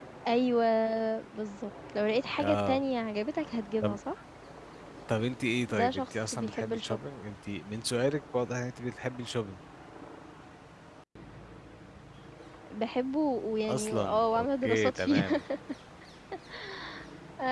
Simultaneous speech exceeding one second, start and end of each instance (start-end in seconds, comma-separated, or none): 5.8-7.0, 13.7-15.2